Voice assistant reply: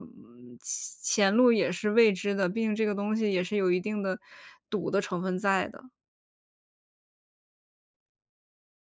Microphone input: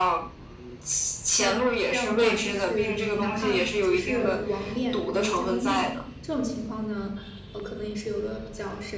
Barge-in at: 1 s

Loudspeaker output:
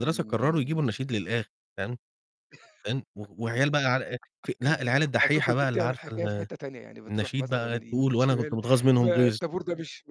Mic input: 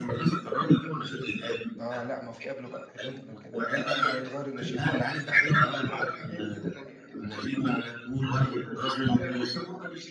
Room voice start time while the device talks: 2 s

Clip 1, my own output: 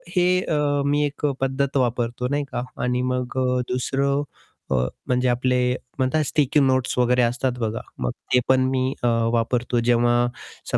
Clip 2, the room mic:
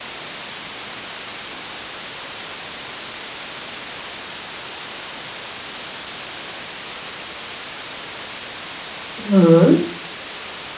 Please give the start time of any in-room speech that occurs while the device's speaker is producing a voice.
9 s

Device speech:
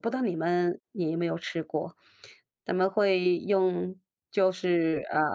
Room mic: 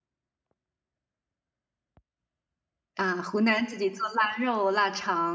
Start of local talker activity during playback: 3 s

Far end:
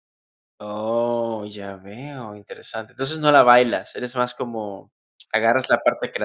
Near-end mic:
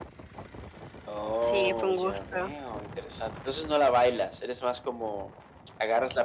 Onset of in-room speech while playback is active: 1 s

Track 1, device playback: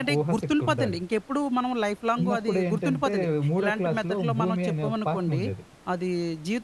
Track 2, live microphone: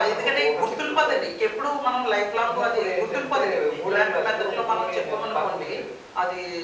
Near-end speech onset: none

